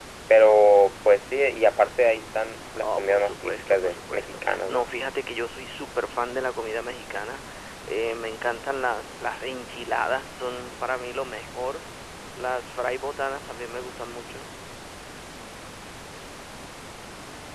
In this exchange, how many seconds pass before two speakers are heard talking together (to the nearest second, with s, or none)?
3 s